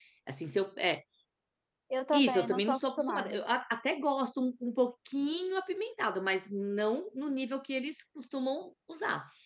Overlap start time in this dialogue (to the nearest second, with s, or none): 2 s